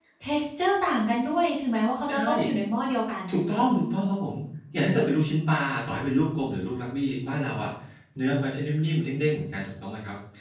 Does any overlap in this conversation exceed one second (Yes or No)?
No